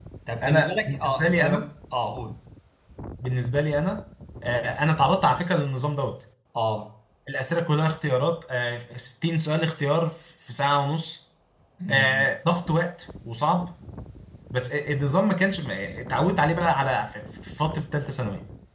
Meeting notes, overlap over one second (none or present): present